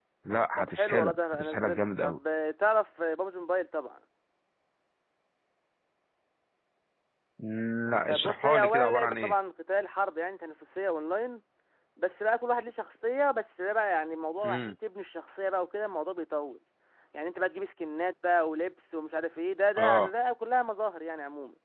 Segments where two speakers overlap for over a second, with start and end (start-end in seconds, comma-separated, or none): 0.6-2.2, 8.1-9.3